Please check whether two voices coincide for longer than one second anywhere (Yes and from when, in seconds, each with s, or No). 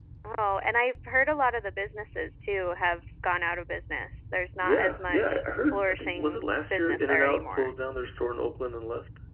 Yes, from 4.6 s